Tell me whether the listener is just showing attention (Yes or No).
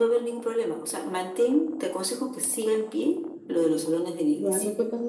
No